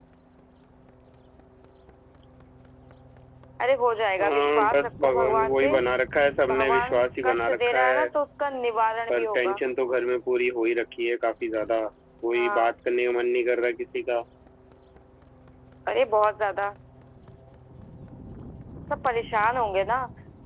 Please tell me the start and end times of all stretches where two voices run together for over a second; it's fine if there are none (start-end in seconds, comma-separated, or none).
4.2-5.7, 6.5-8.1